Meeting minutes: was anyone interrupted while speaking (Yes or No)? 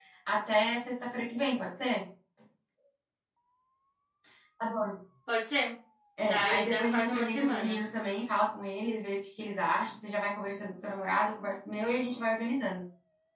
Yes